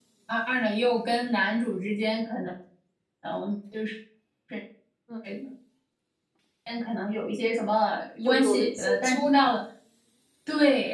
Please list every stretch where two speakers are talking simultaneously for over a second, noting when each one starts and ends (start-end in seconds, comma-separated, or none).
8.2-9.6